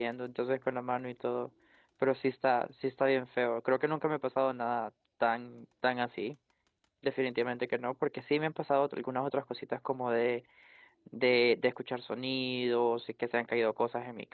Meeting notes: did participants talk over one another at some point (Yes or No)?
No